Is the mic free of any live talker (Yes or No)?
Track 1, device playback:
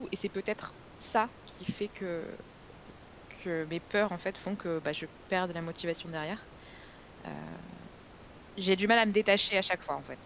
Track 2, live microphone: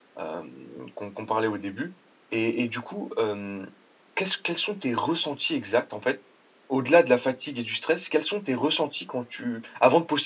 No